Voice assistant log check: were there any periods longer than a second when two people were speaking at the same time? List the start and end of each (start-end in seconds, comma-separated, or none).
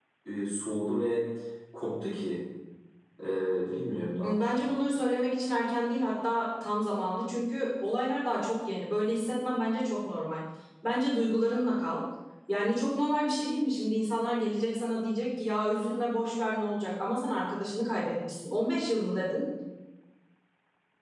none